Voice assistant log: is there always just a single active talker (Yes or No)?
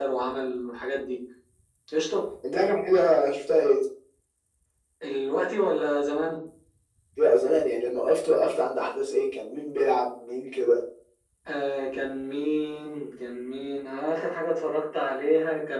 Yes